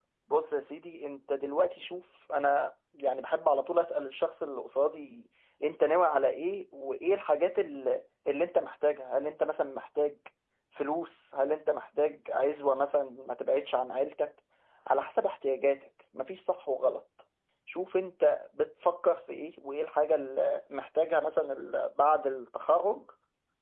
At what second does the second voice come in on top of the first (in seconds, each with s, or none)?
none